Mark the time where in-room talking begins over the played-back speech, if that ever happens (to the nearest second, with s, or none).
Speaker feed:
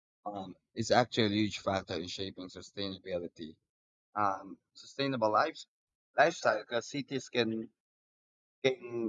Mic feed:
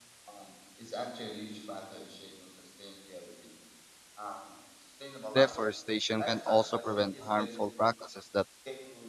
5 s